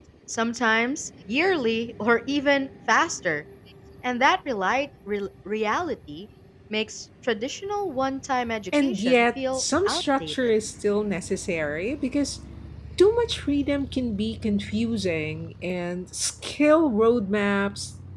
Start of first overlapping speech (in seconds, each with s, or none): 8.7 s